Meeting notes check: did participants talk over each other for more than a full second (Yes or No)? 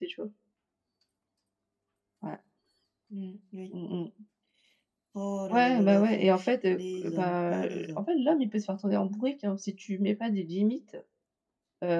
Yes